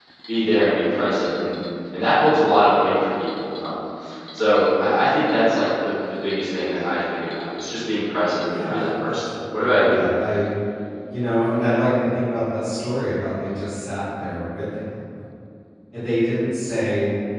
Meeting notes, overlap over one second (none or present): present